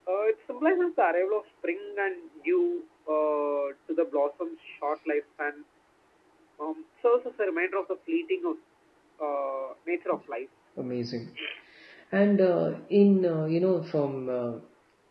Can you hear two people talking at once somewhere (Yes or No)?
No